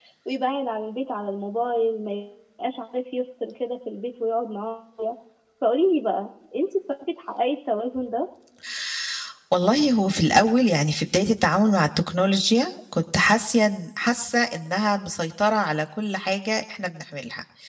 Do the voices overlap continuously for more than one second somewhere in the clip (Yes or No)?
No